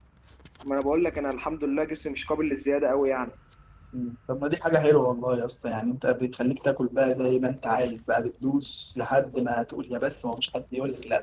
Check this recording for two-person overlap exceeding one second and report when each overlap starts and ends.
none

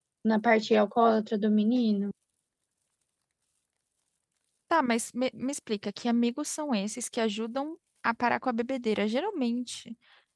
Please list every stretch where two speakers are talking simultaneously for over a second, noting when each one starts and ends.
none

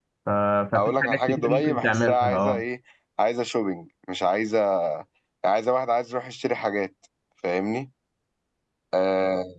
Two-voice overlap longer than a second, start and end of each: 0.7-2.6

